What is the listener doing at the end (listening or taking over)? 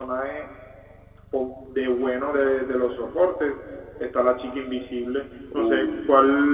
listening